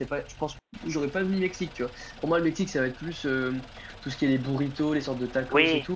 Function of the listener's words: listening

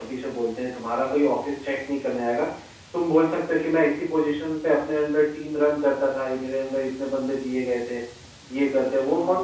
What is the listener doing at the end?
listening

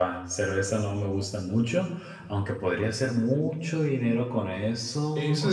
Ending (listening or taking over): taking over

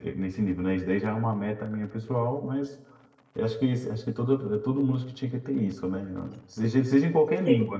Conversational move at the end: listening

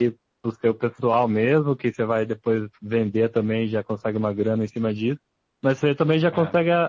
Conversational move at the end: listening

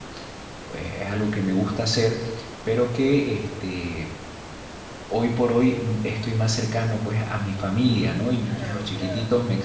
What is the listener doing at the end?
listening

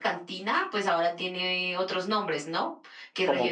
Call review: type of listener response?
listening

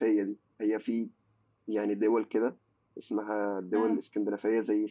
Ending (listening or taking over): listening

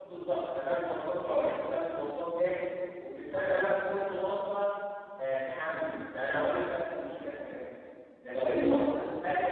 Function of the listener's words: listening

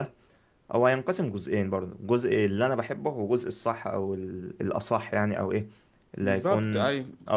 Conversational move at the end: listening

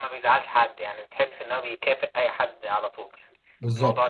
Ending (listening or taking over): taking over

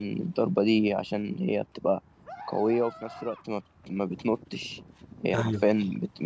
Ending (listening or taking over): listening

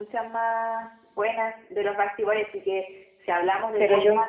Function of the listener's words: listening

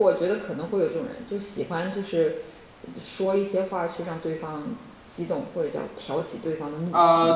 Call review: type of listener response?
taking over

